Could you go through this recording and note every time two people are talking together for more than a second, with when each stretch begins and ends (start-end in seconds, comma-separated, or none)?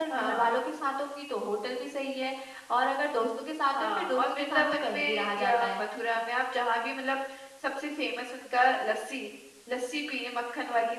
3.8-5.8